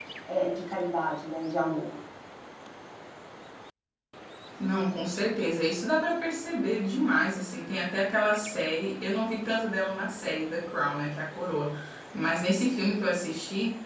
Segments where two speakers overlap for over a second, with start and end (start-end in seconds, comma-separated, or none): none